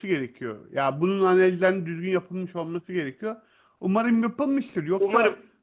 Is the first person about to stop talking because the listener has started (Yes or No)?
No